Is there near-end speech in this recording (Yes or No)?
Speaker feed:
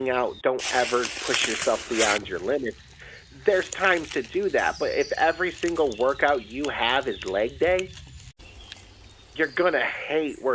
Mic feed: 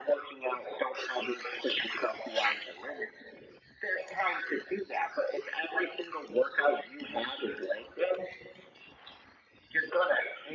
No